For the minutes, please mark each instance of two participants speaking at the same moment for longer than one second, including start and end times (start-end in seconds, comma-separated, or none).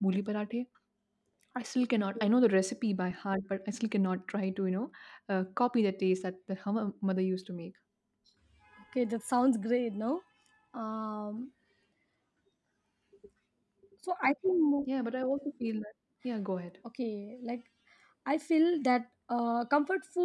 none